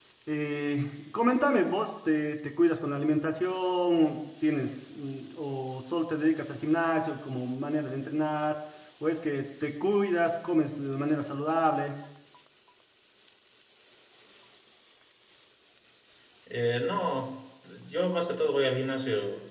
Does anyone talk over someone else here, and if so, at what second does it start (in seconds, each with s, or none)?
none